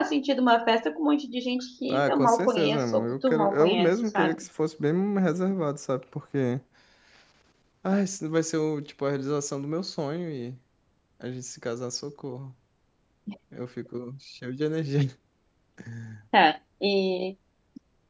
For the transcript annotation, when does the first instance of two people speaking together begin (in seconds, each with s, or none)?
1.9 s